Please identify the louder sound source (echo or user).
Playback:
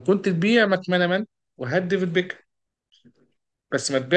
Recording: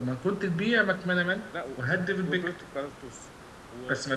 echo